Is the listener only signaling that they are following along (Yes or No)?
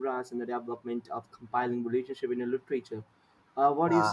No